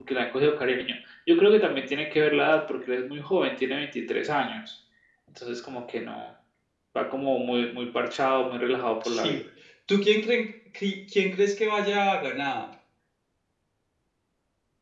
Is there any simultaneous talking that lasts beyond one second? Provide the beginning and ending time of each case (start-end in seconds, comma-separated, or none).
none